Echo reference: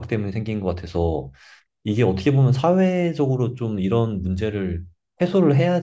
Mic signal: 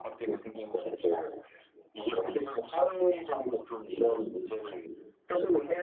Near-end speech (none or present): none